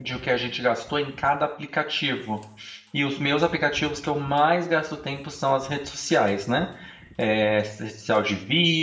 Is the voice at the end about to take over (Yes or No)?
No